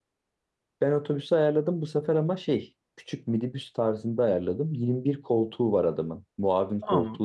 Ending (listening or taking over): taking over